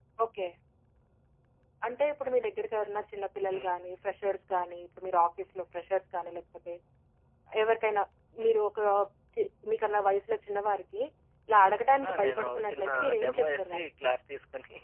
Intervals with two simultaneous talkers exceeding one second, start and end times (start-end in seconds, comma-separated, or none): 12.1-13.9